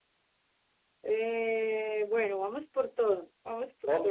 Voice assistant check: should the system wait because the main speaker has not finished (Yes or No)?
No